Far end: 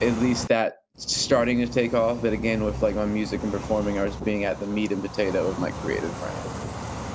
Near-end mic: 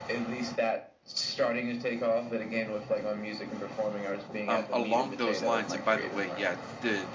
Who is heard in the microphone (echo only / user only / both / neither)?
both